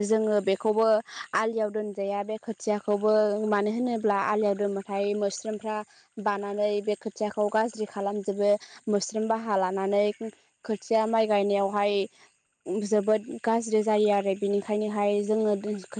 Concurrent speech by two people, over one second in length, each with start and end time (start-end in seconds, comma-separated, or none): none